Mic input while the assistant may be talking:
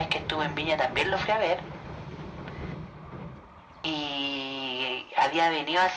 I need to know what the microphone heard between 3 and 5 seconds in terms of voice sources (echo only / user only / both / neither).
echo only